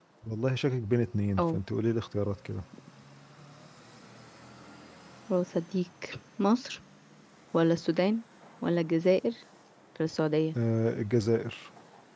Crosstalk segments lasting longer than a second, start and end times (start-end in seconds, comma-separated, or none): none